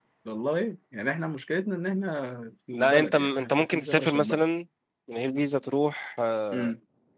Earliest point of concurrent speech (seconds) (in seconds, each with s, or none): 2.7 s